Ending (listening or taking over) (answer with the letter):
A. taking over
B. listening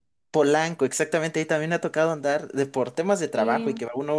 B